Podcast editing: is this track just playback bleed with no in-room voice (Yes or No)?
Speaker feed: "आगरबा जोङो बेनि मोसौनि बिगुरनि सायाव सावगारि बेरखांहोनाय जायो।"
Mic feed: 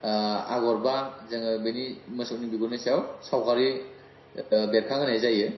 Yes